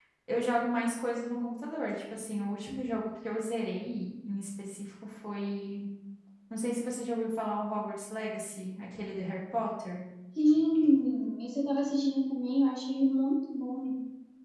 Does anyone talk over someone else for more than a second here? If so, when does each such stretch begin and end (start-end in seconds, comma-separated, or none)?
none